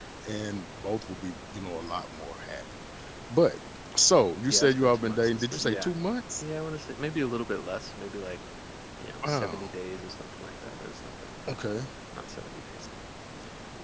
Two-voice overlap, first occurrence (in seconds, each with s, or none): 4.5 s